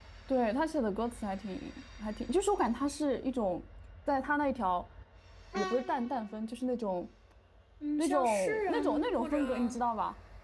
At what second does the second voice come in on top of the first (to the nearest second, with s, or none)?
8 s